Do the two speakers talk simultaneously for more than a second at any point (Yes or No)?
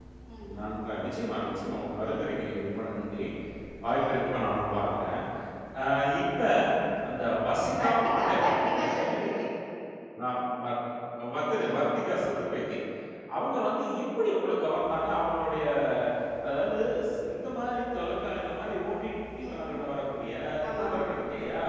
Yes